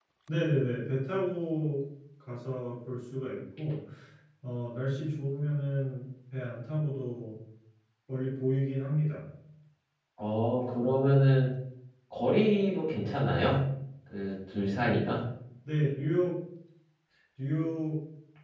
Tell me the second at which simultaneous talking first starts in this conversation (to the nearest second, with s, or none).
none